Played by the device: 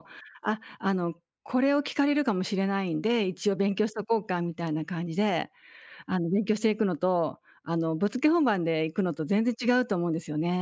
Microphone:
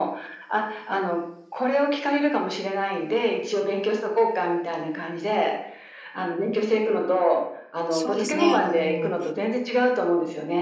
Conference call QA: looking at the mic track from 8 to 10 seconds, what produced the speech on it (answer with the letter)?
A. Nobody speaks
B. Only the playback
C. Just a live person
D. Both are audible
D